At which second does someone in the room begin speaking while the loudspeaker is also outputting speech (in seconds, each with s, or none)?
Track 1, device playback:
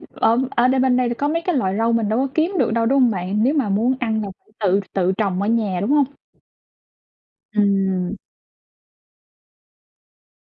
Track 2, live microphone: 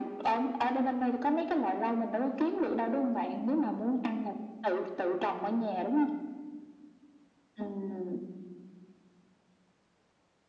none